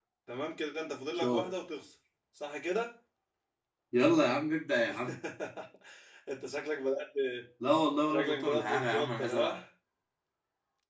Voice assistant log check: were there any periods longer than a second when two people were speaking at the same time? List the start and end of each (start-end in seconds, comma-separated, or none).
8.1-9.6